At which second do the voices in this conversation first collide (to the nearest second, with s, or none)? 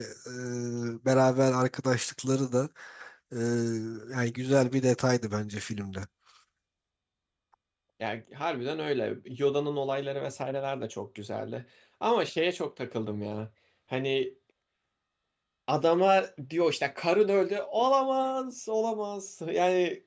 none